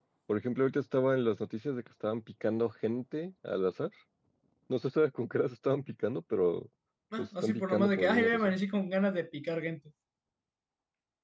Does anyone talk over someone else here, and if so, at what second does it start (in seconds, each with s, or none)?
7.2 s